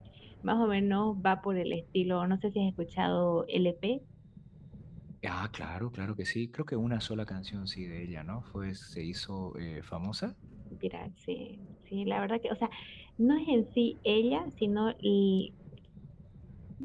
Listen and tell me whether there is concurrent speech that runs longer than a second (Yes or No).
No